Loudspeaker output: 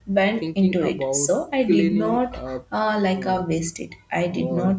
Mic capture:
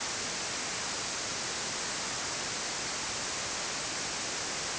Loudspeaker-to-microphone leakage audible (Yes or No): No